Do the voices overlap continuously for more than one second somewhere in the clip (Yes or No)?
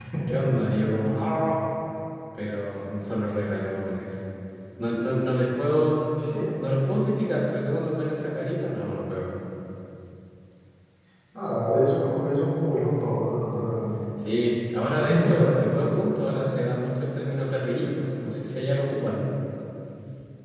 No